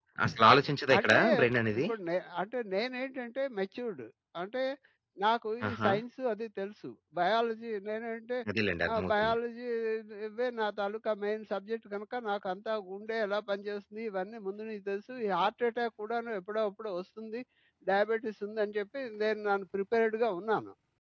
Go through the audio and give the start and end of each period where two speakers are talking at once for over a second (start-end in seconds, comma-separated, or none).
none